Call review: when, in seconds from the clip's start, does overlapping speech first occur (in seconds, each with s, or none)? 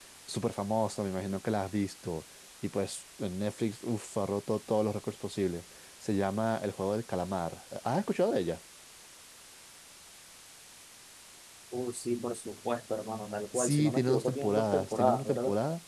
13.5 s